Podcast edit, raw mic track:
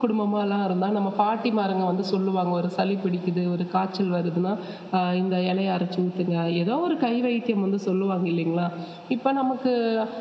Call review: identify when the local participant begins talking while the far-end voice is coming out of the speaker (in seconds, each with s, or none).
none